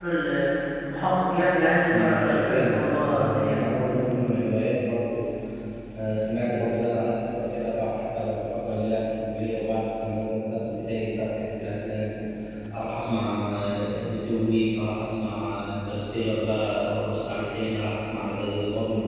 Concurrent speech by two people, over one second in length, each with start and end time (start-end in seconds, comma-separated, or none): 1.9-3.6